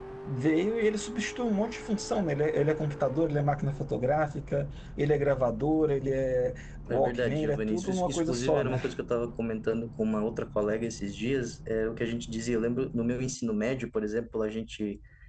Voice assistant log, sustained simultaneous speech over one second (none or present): present